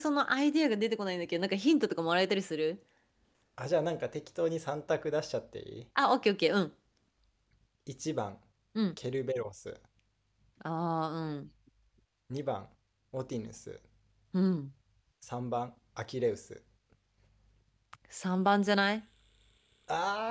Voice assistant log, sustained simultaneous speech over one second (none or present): none